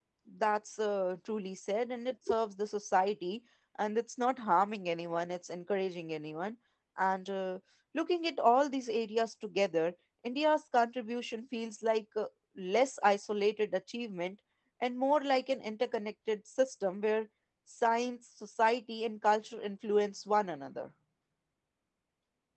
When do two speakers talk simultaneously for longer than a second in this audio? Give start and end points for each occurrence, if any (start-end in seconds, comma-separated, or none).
none